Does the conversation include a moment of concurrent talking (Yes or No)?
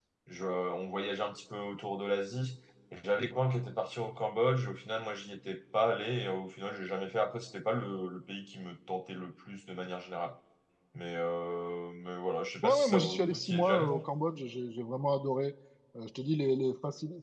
Yes